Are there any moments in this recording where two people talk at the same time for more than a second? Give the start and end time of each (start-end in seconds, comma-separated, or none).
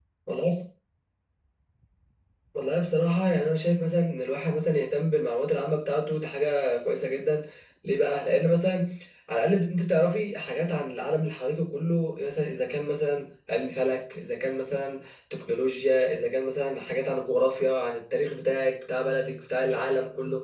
none